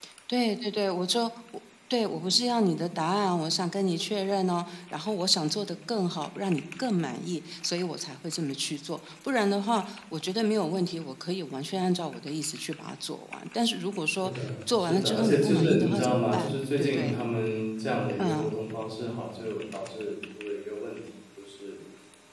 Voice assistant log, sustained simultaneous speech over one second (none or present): present